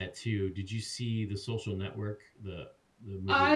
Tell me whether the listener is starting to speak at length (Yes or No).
Yes